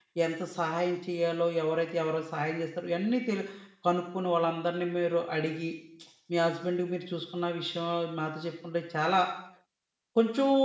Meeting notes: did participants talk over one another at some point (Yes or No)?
No